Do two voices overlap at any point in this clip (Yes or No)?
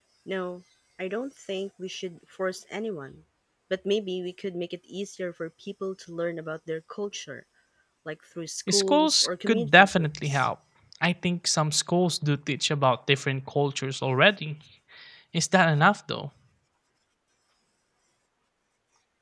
Yes